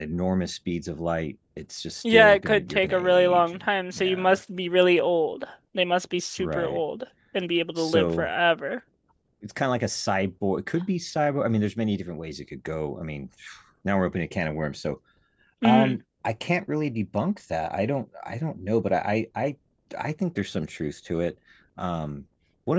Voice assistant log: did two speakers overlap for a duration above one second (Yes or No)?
Yes